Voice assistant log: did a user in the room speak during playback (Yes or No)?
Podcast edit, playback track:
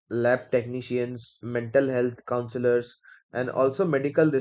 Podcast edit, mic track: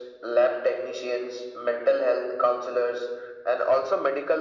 No